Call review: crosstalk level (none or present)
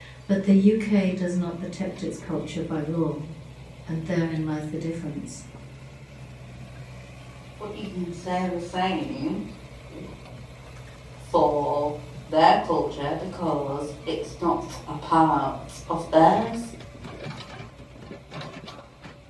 none